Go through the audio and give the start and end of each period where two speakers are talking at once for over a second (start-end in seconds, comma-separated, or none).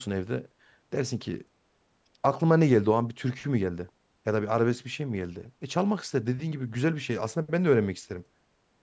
none